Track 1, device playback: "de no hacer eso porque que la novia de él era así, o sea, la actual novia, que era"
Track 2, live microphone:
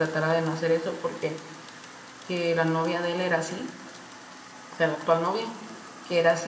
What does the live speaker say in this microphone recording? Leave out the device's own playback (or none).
none